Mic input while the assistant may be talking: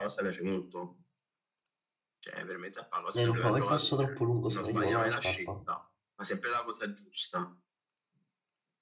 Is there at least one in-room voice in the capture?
Yes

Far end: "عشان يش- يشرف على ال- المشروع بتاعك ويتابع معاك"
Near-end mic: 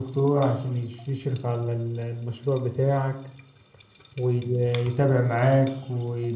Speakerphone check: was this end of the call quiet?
Yes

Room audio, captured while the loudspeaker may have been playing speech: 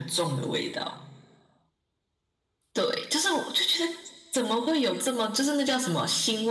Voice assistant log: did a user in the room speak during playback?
No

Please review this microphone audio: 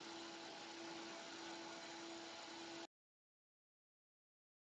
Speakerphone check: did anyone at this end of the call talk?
No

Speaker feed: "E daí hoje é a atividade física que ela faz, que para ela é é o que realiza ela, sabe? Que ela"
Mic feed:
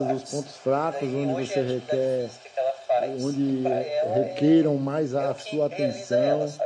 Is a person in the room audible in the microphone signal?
Yes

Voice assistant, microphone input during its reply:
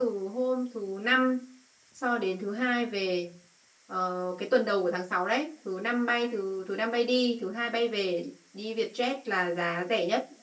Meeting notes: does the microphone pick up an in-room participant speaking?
Yes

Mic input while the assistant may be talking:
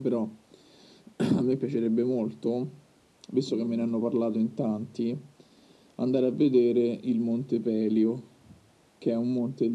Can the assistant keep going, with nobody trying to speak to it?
Yes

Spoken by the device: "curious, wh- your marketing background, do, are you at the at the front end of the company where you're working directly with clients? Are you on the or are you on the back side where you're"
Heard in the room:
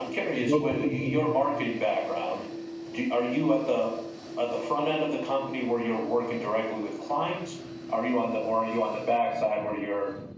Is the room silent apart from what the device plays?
No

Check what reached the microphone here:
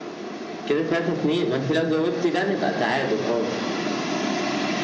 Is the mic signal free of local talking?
Yes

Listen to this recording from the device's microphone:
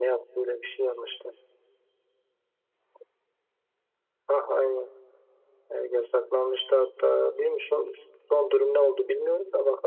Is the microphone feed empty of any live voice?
Yes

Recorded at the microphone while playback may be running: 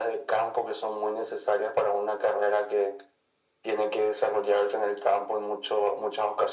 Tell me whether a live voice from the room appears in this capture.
No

